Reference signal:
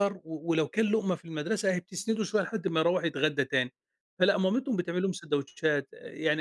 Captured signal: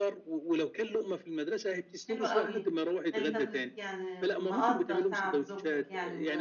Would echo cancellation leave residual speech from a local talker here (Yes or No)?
Yes